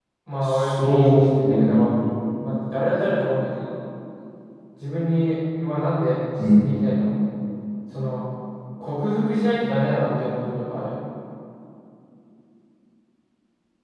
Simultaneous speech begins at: 0.5 s

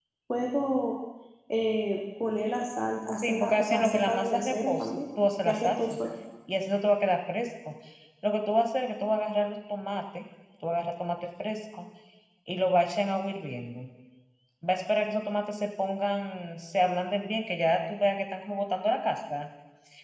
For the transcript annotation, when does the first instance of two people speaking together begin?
3.2 s

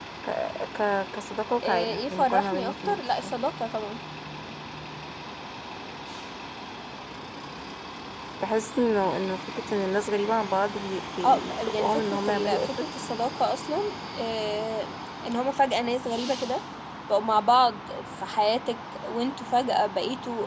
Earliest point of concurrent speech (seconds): 1.6 s

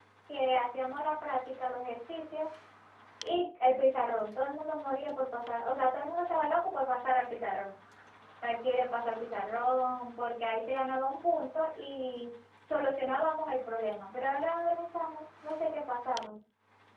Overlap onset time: none

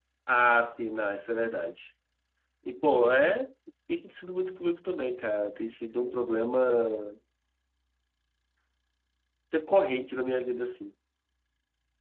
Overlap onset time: none

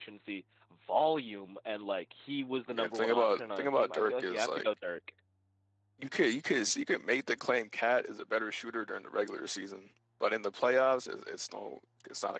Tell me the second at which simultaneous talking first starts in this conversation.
2.7 s

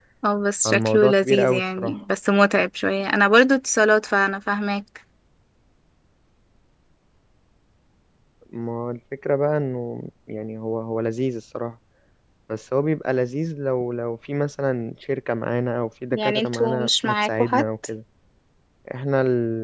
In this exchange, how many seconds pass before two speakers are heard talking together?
0.6 s

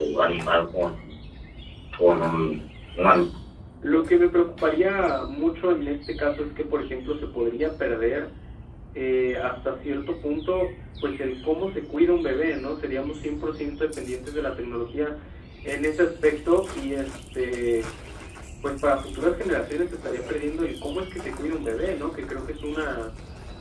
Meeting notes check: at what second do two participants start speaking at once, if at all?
none

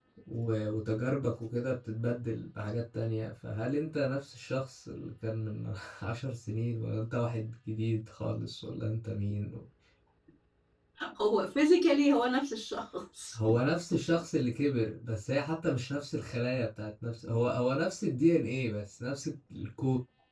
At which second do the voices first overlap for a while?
none

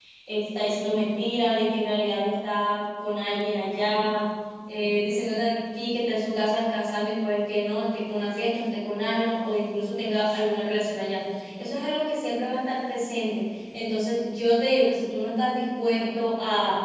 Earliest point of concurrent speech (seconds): none

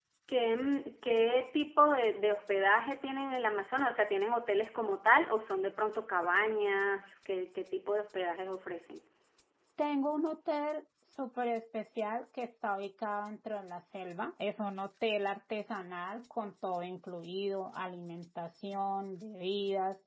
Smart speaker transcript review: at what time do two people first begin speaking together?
none

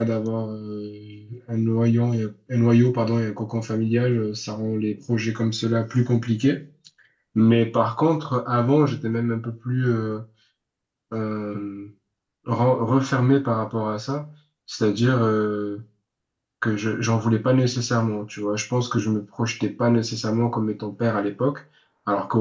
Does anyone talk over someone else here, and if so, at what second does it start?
none

